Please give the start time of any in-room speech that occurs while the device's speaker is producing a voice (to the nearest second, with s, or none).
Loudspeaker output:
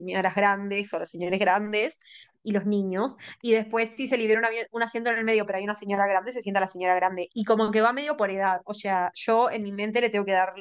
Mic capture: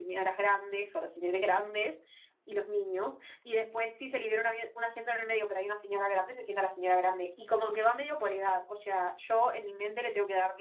none